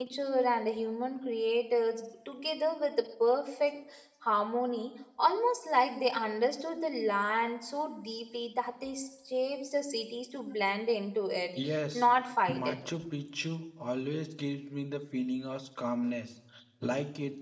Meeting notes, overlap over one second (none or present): none